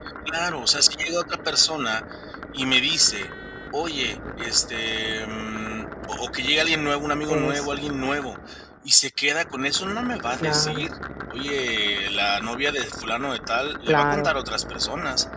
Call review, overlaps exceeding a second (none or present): none